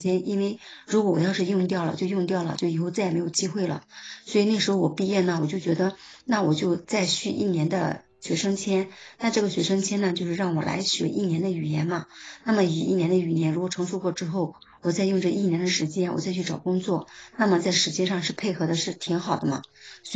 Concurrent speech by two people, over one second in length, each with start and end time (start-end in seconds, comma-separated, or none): none